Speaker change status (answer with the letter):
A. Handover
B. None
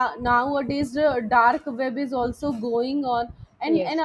B